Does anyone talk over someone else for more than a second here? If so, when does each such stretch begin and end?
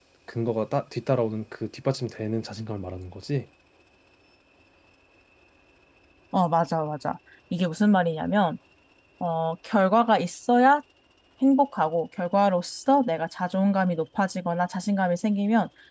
none

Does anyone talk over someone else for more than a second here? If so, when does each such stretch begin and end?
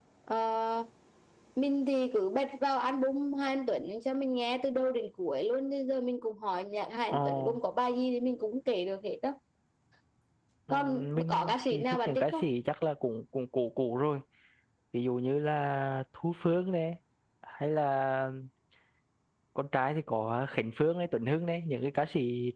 10.7-12.4

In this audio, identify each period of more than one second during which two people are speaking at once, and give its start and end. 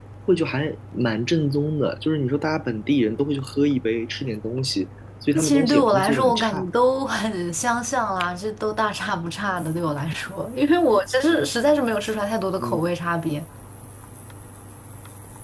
5.3-6.7

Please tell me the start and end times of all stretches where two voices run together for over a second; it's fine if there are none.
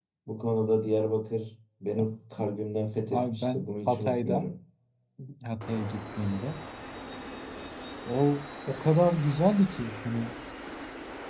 3.1-4.5

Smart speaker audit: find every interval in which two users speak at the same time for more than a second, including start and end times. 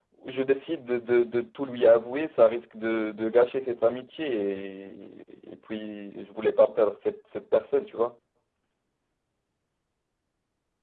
none

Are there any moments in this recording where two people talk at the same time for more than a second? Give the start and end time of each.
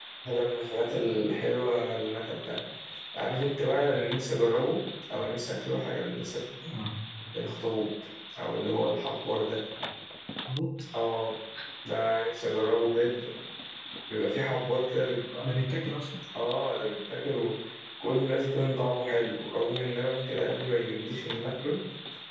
none

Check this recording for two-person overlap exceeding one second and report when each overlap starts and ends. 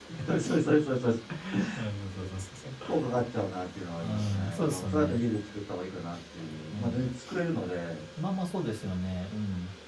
4.0-5.2

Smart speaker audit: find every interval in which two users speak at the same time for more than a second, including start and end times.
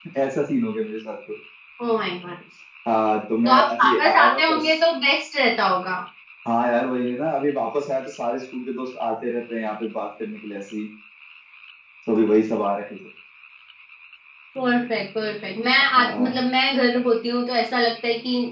3.4-4.6

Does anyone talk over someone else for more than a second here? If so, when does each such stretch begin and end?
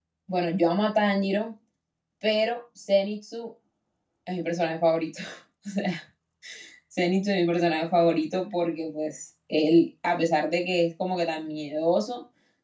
none

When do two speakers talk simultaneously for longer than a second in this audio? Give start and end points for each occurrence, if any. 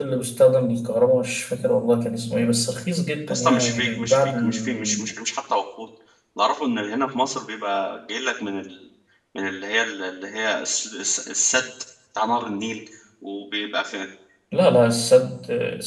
3.3-5.0

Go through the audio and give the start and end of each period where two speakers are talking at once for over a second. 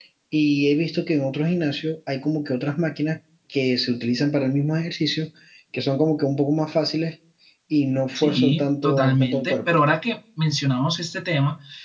8.2-9.8

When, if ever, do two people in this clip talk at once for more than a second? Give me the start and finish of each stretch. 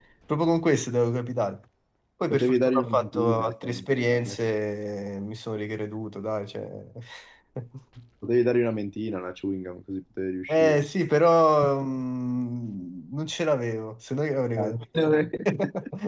2.3-4.4

